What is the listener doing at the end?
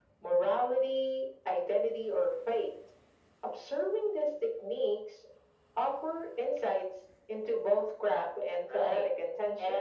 taking over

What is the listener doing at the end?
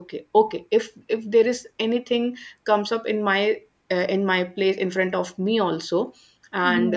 listening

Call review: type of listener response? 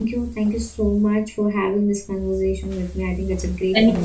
taking over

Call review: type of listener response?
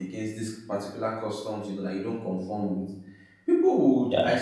listening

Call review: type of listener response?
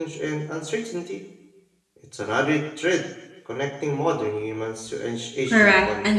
taking over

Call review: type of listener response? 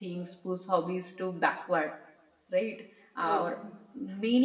listening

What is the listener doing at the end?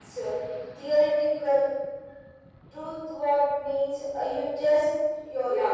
taking over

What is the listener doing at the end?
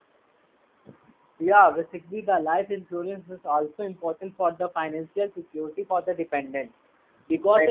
listening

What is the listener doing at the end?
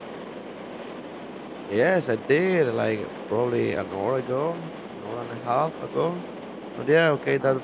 listening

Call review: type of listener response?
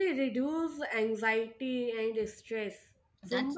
listening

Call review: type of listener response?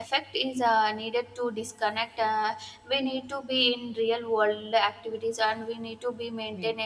listening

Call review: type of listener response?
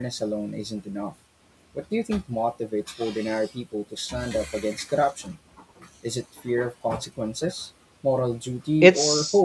taking over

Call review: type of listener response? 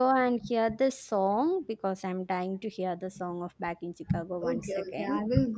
taking over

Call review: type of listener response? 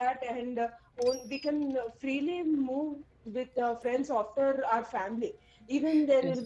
listening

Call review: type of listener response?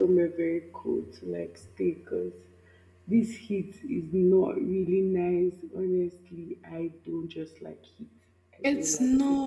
taking over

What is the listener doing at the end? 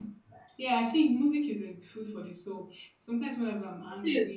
listening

